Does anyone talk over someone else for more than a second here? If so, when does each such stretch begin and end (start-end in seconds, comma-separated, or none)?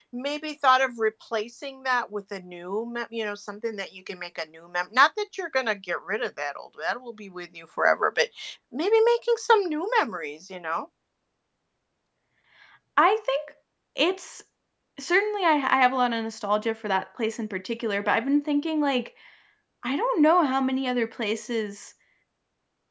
none